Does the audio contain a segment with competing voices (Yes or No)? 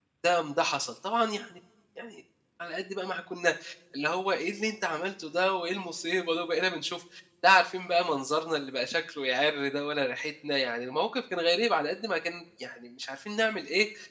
No